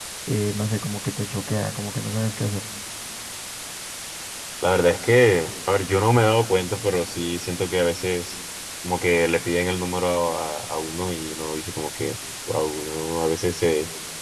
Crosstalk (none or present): none